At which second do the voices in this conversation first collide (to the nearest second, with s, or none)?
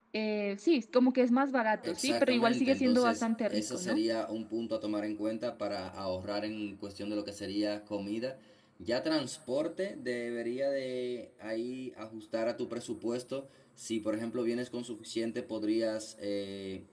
2 s